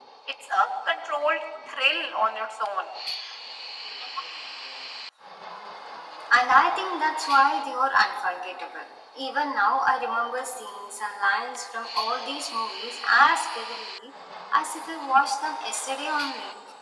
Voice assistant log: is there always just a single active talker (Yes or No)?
Yes